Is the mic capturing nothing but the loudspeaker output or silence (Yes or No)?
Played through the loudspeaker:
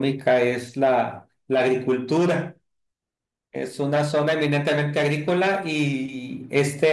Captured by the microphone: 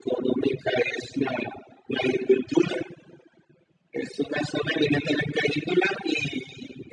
Yes